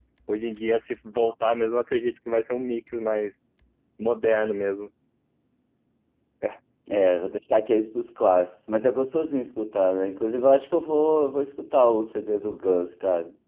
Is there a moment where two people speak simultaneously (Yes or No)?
No